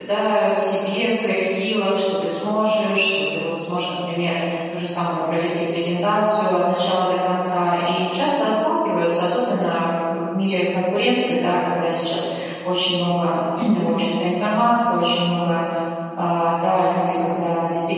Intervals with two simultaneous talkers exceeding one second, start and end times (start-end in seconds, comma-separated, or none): none